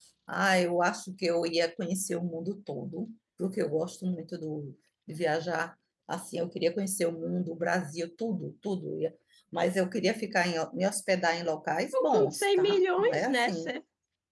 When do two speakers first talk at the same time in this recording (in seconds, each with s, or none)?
11.9 s